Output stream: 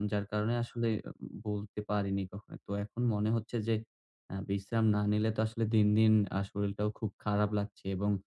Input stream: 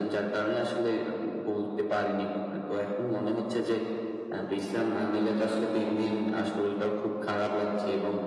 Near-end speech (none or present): none